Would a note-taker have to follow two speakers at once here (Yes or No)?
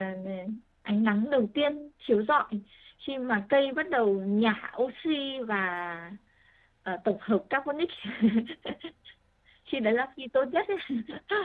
No